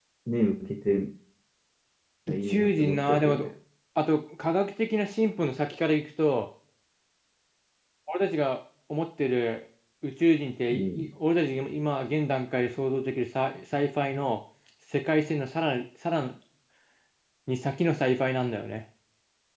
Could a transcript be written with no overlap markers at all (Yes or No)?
No